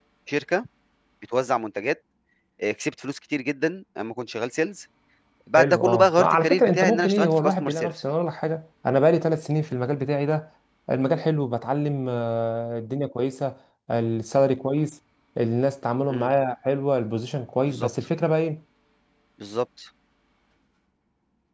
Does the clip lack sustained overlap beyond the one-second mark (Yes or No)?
No